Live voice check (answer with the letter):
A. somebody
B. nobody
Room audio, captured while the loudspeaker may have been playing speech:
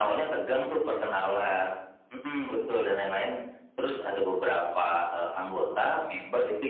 B